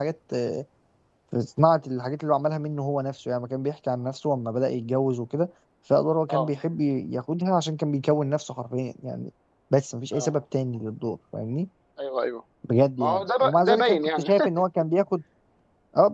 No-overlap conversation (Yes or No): No